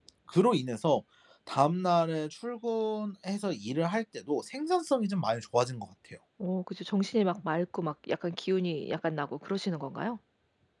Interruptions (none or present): none